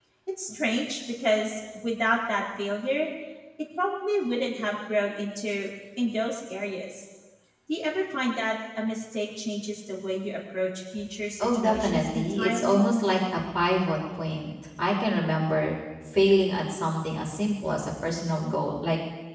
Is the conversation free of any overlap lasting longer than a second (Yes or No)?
No